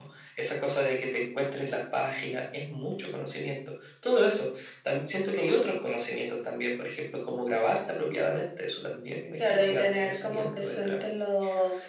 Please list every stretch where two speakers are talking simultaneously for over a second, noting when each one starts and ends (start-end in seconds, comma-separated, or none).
9.4-10.9